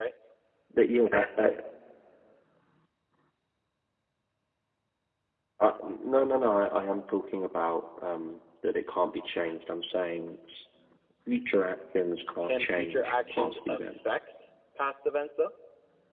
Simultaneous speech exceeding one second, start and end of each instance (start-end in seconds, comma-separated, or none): 12.4-13.8